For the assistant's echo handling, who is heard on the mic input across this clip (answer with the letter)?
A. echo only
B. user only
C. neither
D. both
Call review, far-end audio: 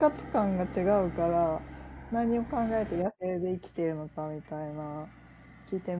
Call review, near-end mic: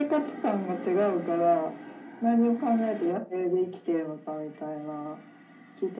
A